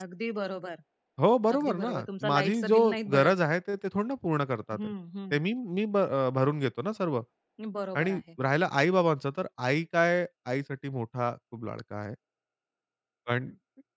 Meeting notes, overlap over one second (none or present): present